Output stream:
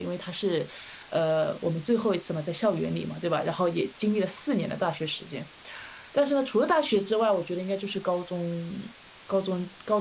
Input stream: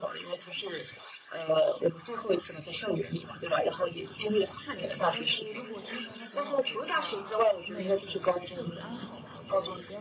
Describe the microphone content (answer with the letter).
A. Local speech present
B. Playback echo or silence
A